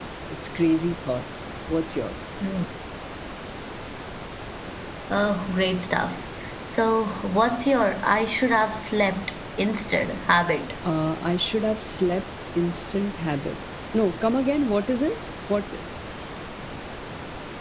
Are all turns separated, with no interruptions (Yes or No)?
Yes